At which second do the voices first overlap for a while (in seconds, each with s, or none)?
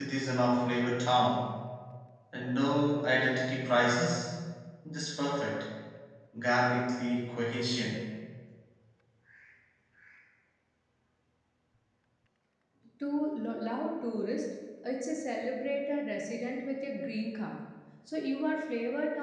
none